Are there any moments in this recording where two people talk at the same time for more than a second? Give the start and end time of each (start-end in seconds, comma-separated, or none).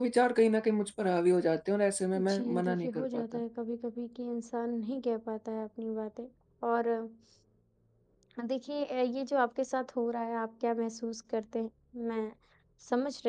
2.1-3.4